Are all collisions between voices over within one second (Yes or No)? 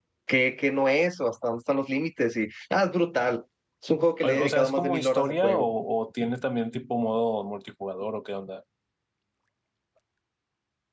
No